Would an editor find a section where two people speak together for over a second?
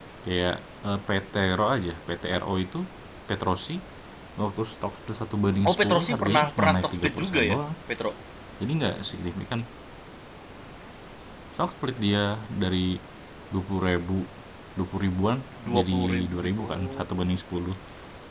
Yes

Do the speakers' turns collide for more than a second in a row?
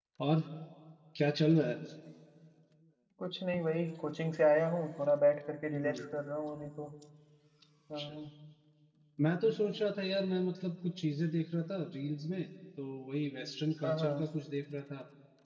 No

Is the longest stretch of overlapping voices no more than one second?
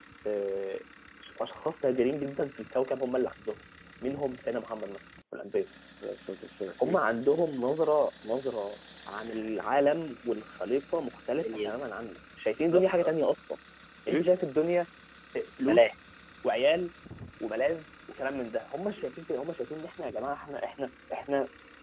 Yes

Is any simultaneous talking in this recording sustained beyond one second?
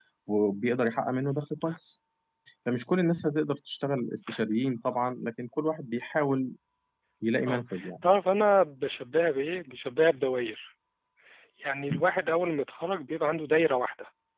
No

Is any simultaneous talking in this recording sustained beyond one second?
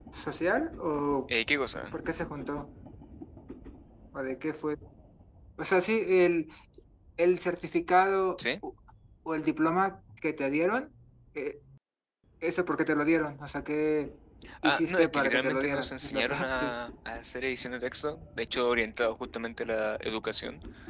Yes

